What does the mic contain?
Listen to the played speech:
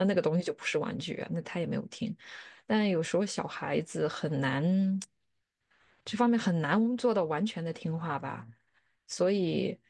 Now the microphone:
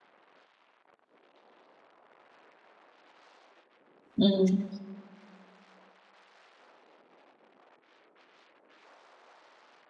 user only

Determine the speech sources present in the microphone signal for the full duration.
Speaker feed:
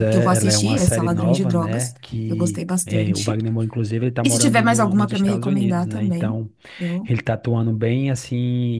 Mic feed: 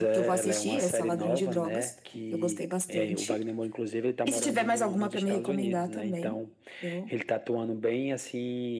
echo only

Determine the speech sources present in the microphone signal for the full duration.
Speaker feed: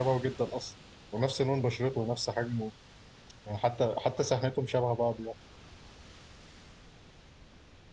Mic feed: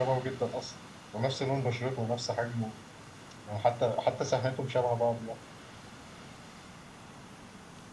echo only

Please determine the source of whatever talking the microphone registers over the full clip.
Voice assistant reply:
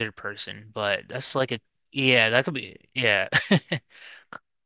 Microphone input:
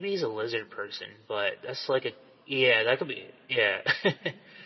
echo only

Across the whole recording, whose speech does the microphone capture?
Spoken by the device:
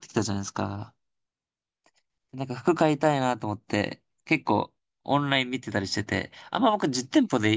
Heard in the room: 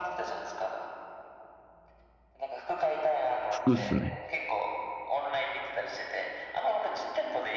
both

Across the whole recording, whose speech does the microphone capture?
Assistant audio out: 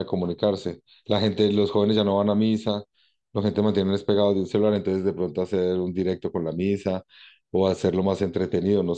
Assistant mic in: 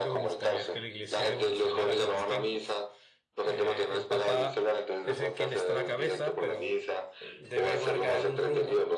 both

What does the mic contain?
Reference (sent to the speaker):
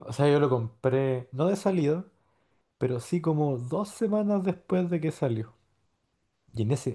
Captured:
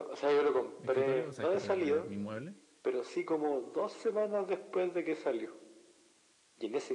both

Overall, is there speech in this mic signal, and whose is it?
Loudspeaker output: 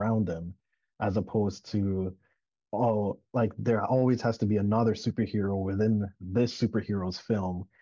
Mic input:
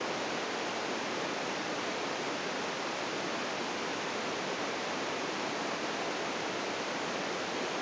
neither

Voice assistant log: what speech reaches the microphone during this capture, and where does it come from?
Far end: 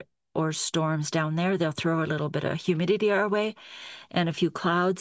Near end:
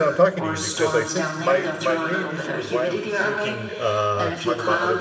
both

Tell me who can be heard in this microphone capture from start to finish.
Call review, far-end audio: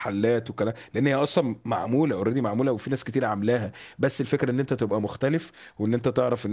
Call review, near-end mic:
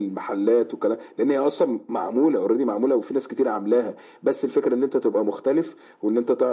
echo only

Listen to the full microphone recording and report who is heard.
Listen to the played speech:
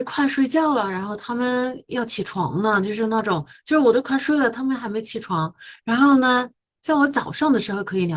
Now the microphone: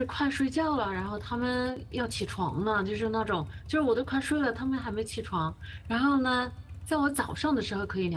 echo only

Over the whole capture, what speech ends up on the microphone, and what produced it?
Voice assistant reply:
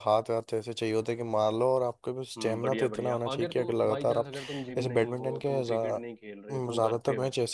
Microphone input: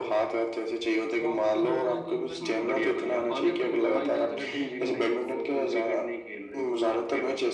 both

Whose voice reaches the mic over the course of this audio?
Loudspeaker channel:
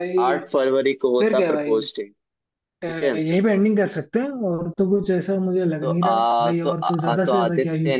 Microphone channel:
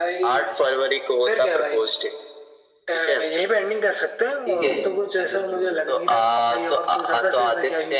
both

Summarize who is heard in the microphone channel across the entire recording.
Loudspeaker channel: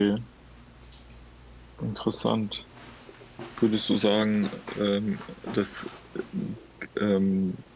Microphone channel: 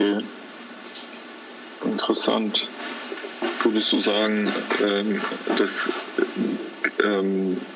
echo only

